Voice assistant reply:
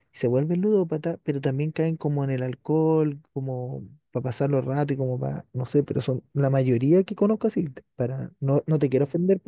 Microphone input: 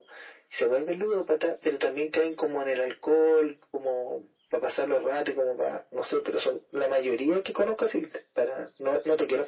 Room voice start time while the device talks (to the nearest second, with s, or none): none